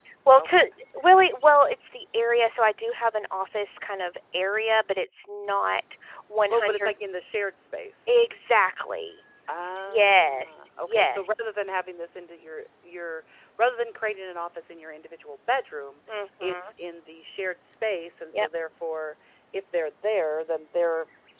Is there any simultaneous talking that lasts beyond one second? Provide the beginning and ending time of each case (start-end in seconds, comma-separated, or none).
9.7-11.2